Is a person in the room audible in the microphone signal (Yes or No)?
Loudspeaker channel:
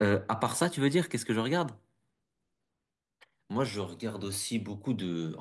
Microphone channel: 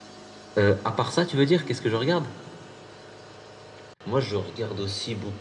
No